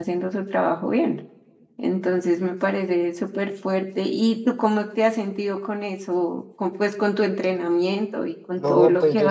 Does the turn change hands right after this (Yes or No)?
Yes